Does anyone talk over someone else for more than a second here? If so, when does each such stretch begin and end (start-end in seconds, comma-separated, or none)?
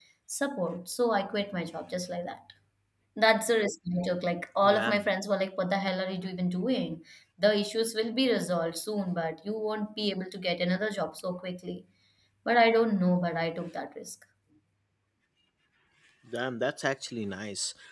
none